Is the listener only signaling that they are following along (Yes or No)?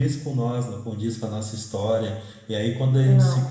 Yes